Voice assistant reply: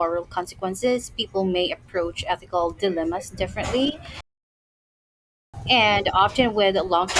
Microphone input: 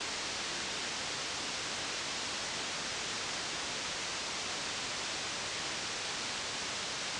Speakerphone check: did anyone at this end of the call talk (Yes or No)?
No